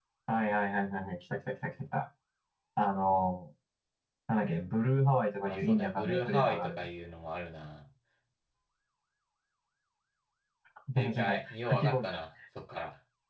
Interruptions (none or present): present